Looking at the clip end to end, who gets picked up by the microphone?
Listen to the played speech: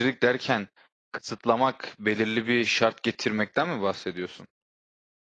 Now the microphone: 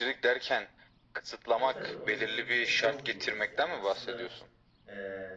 both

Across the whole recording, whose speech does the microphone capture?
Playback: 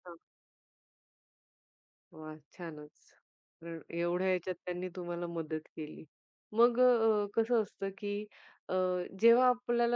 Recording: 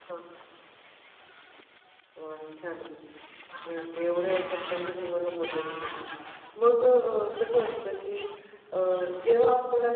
echo only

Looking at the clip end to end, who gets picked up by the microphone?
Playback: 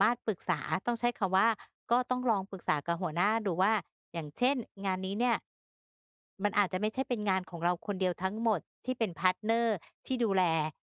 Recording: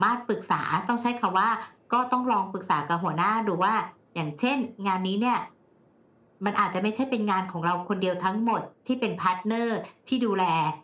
echo only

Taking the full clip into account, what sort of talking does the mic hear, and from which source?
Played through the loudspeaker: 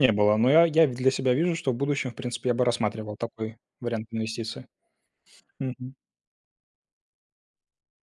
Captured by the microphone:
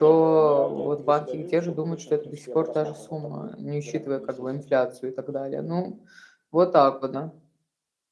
both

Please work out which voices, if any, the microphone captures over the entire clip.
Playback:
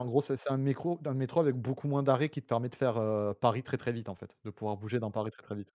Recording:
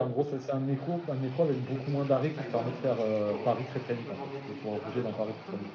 both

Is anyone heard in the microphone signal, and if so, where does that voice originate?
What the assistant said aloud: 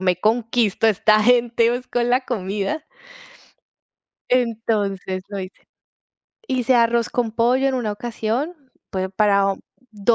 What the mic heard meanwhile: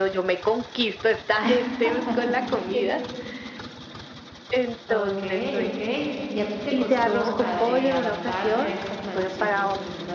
both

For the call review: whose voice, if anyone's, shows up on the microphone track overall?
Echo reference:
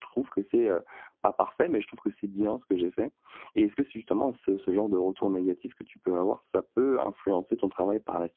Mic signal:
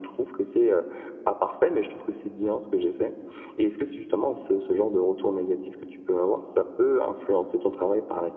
echo only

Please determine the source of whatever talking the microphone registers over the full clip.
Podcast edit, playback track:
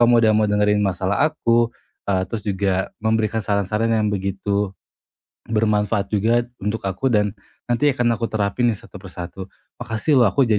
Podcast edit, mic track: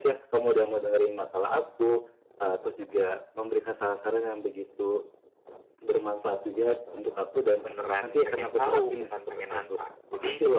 both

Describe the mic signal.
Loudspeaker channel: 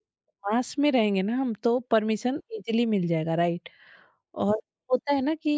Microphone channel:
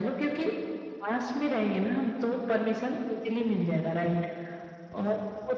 echo only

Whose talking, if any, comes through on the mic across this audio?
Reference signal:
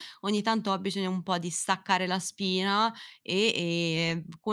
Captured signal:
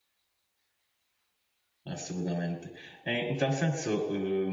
user only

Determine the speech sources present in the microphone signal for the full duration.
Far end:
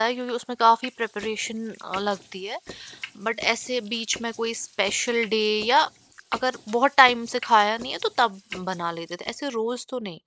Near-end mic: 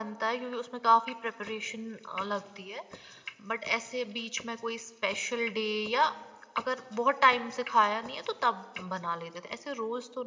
echo only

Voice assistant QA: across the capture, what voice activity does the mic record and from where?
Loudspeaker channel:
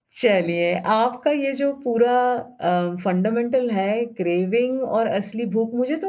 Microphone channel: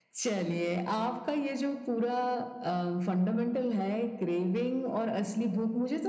echo only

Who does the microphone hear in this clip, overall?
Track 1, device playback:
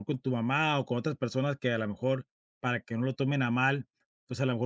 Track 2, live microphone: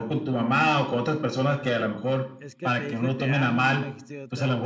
both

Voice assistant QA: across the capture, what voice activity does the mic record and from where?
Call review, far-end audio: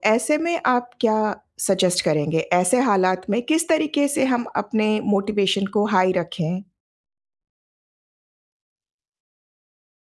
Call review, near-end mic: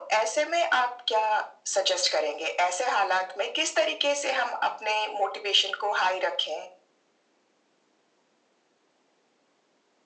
echo only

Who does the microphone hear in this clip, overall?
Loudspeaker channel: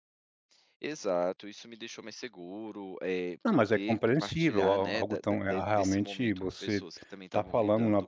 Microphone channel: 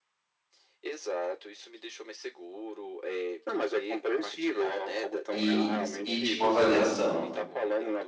both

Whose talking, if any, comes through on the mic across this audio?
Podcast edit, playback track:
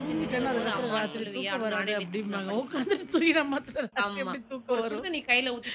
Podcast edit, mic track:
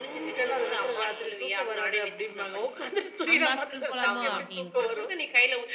both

